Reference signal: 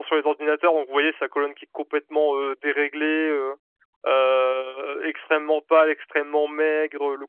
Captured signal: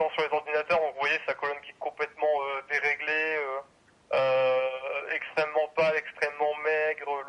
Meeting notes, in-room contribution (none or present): none